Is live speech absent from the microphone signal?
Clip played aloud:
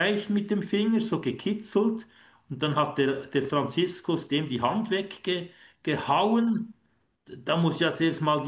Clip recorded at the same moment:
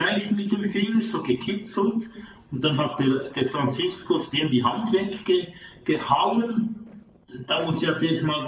Yes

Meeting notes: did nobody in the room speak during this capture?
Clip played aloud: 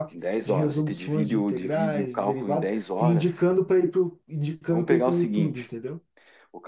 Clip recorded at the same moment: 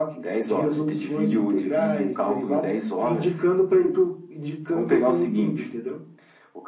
Yes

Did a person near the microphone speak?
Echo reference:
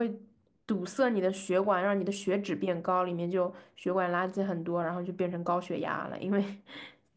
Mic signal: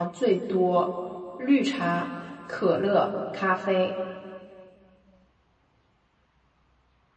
Yes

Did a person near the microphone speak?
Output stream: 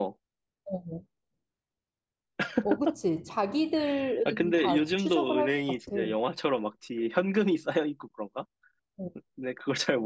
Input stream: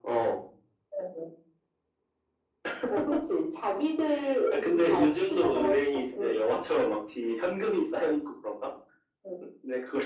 No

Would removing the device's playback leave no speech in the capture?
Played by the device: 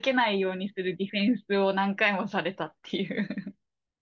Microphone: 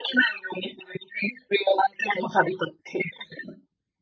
Yes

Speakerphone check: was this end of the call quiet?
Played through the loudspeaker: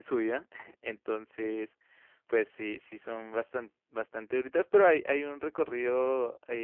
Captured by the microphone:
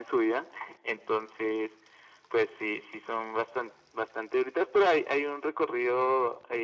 Yes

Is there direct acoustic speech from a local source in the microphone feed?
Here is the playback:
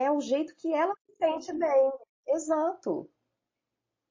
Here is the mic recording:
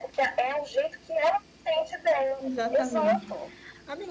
Yes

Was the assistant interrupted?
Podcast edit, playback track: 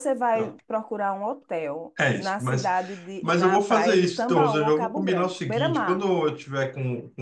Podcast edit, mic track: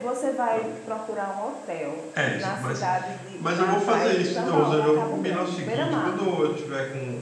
No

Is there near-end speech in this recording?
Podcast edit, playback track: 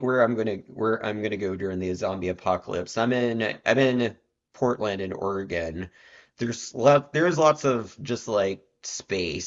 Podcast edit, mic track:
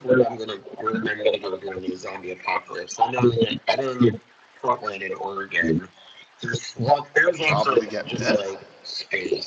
Yes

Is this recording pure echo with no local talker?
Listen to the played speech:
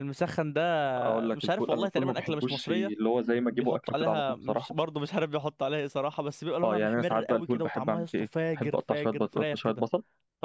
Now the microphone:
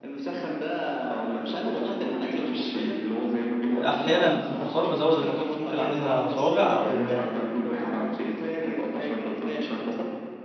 No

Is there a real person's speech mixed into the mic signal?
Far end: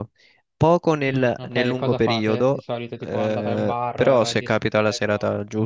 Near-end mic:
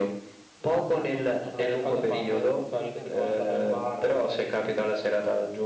Yes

